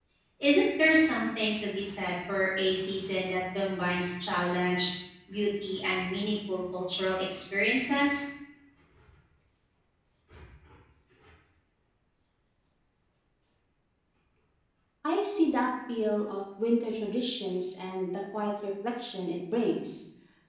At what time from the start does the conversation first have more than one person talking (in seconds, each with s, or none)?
none